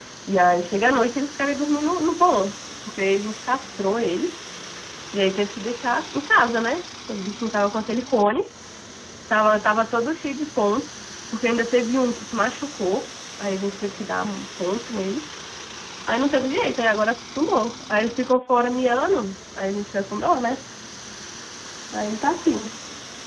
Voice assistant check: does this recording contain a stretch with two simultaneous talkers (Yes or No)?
No